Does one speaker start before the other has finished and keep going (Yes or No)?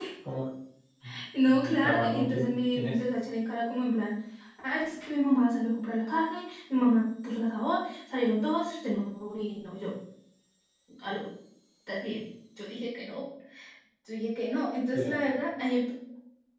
Yes